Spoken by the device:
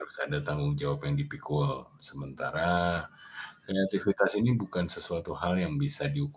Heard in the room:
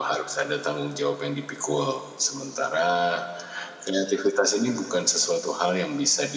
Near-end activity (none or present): none